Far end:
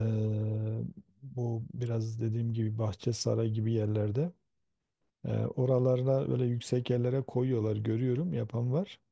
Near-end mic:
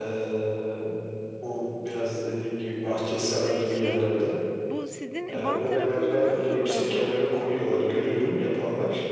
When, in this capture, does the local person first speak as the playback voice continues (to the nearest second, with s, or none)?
3 s